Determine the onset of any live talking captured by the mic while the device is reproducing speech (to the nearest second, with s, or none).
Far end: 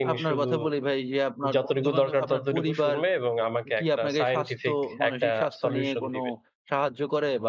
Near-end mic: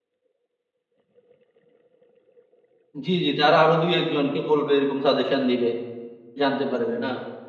3 s